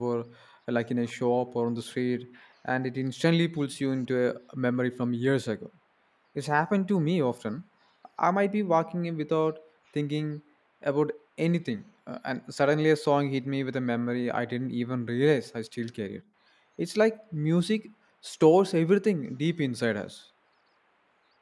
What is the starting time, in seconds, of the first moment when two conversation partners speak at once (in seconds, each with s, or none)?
none